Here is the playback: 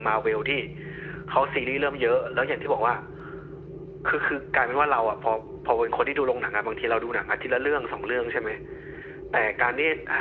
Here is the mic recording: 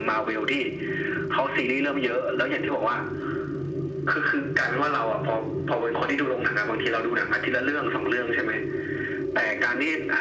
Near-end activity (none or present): none